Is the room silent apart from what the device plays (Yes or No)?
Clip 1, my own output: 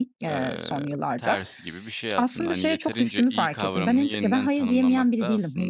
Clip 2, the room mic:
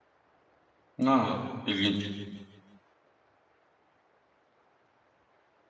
No